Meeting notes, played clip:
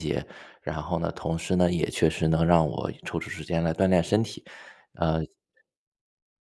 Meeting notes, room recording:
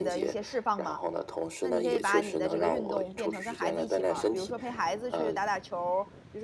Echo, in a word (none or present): present